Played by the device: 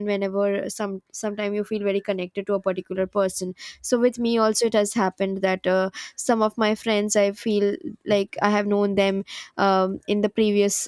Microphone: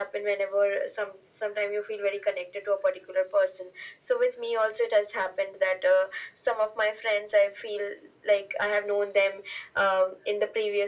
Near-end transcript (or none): none